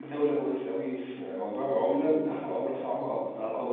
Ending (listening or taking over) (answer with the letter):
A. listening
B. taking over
A